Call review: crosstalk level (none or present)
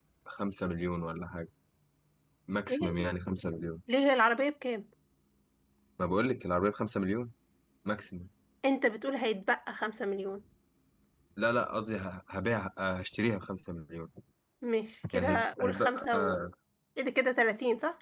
present